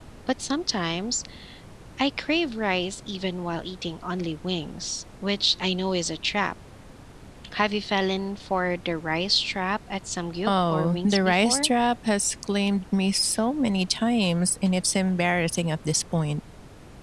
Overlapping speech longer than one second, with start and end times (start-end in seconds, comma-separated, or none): 10.5-11.7